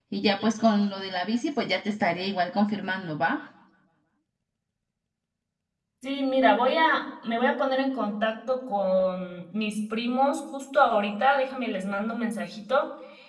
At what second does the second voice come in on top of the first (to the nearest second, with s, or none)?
none